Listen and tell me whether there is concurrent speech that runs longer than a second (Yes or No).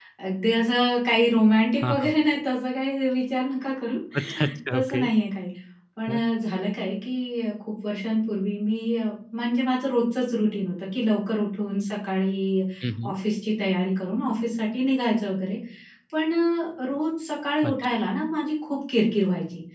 No